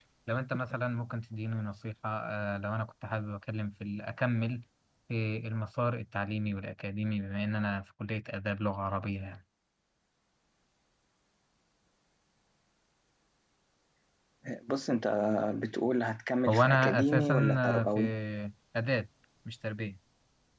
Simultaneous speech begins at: 16.5 s

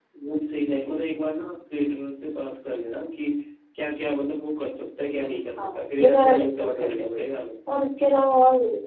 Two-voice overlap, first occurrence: 5.6 s

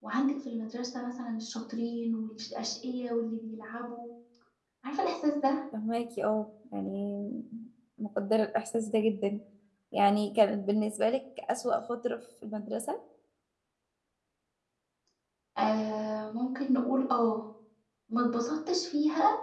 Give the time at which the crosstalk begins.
none

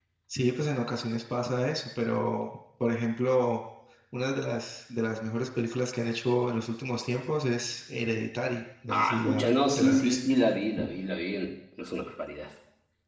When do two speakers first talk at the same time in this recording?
8.9 s

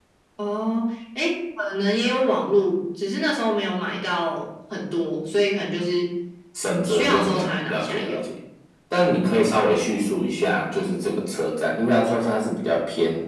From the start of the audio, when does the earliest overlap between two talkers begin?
6.9 s

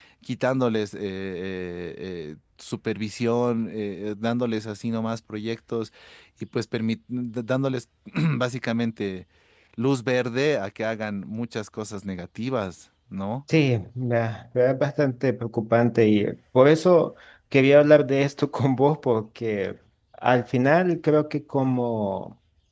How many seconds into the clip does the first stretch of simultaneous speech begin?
none

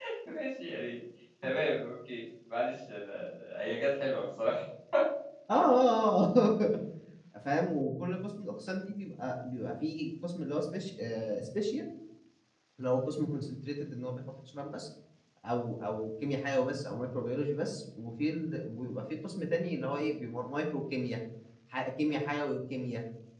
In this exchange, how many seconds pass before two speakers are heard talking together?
none

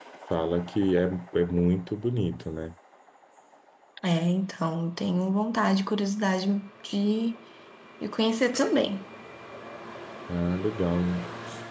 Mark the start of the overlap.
none

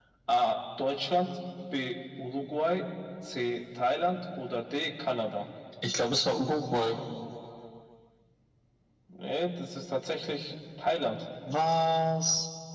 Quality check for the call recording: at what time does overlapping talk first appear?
none

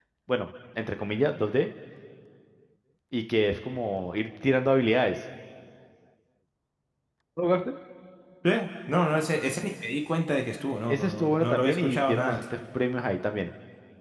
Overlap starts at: 10.9 s

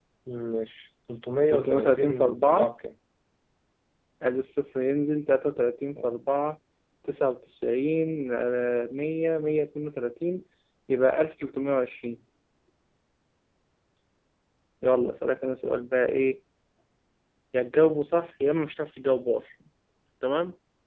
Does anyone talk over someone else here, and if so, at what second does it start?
1.5 s

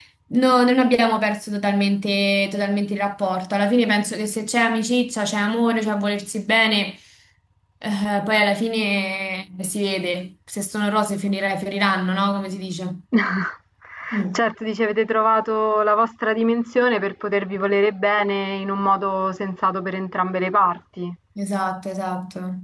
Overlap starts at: none

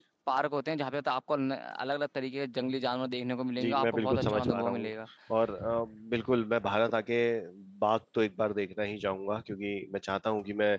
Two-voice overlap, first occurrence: 3.6 s

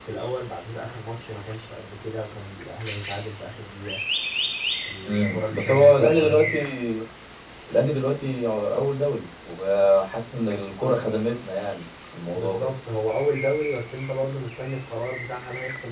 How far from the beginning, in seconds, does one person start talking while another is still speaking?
5.1 s

